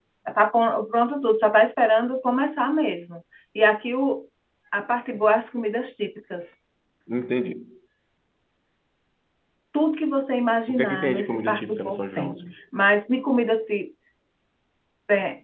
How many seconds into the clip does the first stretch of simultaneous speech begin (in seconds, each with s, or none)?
10.7 s